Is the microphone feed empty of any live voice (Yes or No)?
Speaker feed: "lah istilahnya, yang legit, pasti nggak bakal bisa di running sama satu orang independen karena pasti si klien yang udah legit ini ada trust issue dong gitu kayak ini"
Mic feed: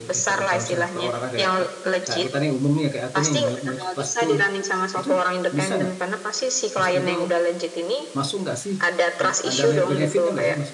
No